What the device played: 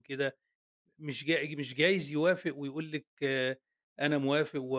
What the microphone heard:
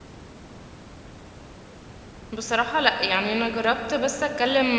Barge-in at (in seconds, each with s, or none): 2.3 s